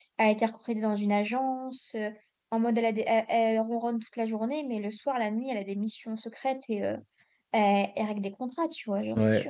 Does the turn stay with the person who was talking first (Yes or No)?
No